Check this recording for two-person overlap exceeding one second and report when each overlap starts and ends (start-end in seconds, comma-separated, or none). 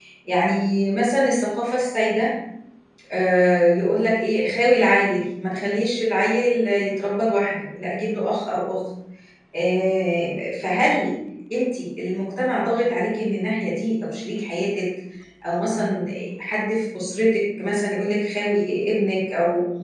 none